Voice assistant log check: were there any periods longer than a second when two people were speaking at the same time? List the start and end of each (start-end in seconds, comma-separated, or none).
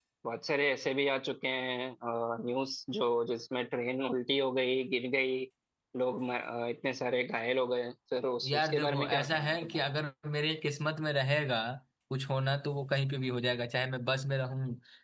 8.5-9.8